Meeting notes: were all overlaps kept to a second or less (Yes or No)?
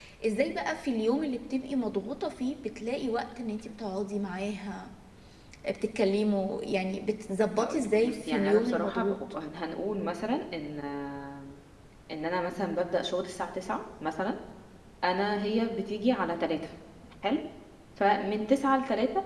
No